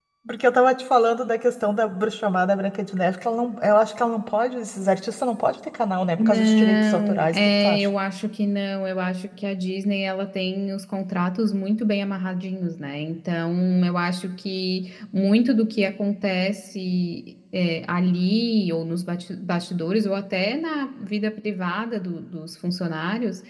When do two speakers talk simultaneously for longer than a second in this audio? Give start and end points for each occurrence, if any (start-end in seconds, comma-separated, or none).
6.2-7.9